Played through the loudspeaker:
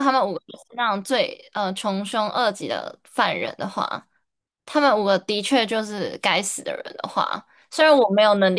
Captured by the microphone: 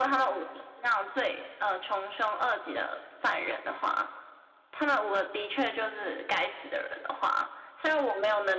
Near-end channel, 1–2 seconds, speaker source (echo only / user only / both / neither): echo only